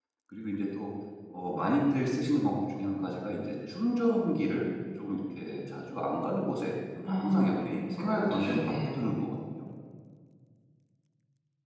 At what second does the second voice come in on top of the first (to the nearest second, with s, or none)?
7 s